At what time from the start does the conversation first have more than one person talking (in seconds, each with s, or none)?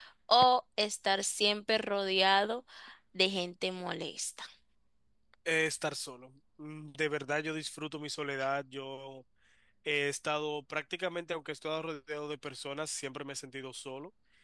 none